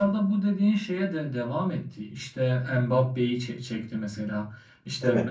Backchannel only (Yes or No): Yes